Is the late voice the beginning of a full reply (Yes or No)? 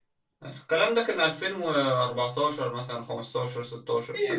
Yes